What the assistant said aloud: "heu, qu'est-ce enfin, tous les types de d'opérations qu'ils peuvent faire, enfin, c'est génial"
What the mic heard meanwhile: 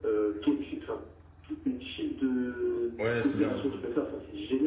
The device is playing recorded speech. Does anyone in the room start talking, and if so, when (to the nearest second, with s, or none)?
3 s